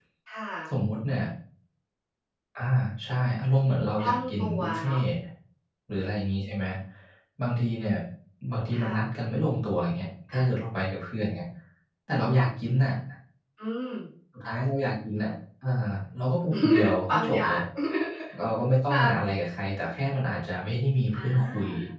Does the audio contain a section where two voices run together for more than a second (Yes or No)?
Yes